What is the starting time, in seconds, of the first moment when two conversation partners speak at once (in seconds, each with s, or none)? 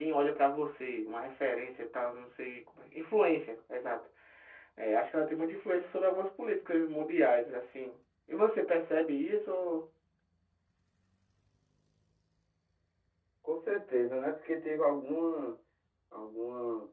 none